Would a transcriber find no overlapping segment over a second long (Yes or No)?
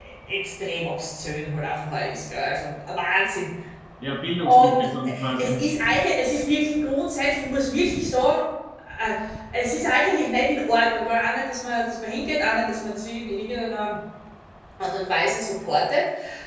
Yes